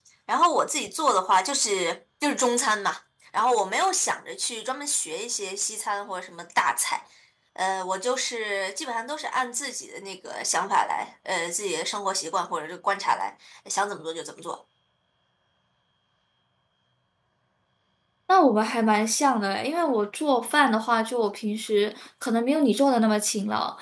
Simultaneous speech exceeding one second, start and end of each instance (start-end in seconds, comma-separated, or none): none